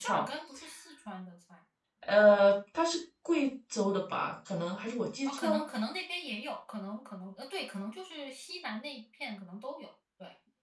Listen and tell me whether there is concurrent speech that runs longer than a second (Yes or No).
No